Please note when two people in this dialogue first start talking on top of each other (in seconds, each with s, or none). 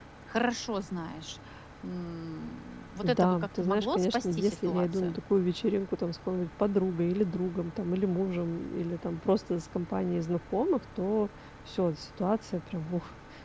3.0 s